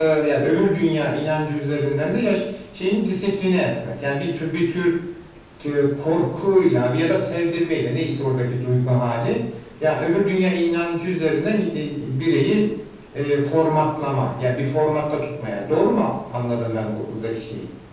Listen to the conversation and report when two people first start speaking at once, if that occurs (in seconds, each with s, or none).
none